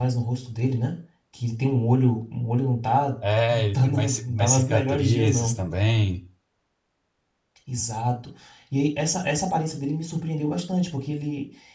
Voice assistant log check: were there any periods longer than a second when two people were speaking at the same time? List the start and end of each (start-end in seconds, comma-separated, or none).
3.5-5.6